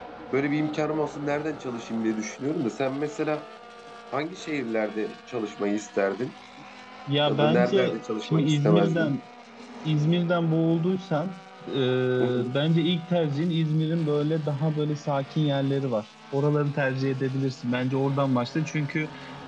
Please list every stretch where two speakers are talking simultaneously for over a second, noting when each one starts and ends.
7.3-9.1

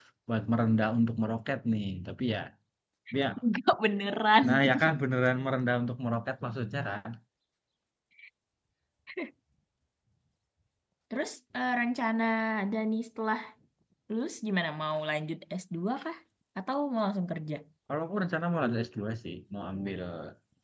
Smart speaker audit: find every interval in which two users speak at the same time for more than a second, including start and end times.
none

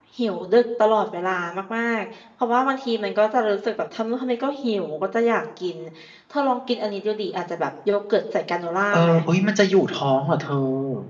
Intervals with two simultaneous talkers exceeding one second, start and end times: none

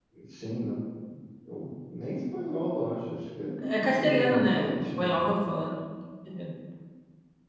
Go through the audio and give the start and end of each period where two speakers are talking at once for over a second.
3.8-5.3

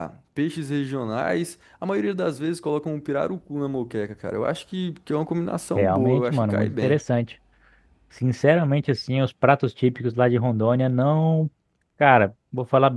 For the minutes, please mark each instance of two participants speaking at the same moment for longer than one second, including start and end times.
5.8-7.0

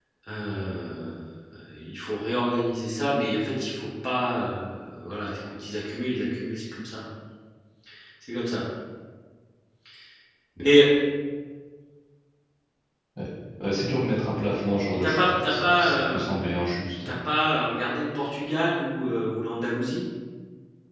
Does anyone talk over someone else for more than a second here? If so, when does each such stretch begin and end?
14.9-16.2

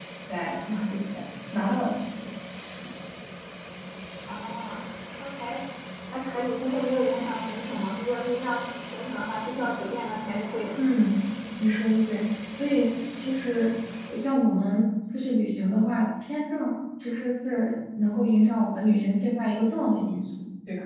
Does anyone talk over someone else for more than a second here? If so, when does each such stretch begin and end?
none

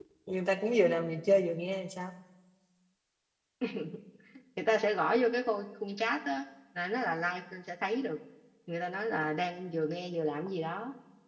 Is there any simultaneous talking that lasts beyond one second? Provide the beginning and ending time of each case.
none

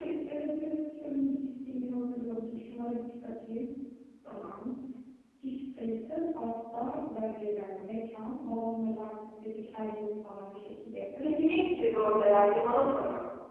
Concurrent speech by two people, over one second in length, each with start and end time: none

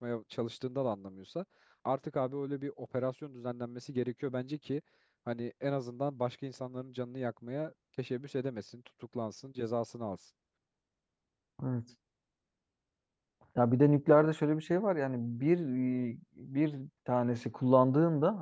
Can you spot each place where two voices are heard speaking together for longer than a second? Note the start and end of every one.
none

